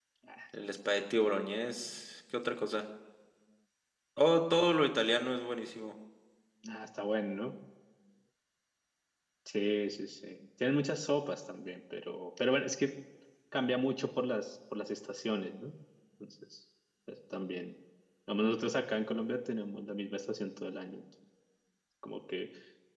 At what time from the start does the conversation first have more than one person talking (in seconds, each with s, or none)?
none